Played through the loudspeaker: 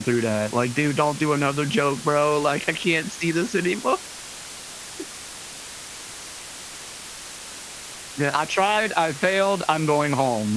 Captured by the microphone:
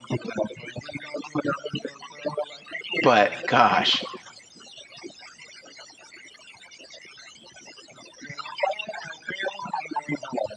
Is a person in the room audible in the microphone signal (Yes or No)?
Yes